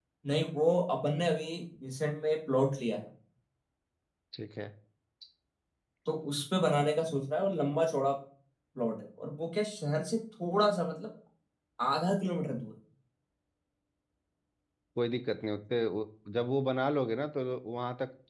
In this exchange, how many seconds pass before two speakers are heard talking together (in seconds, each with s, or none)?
none